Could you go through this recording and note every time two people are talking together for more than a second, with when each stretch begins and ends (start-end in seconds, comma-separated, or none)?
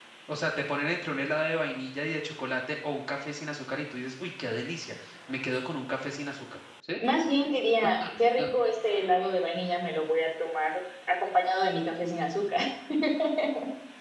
none